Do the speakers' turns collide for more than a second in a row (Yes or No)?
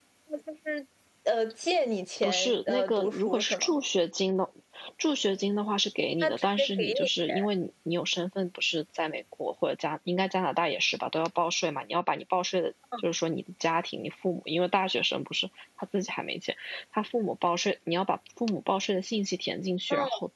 Yes